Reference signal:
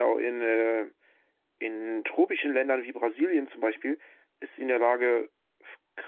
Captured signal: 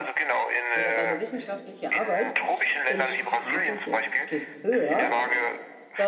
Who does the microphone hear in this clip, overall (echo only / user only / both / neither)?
both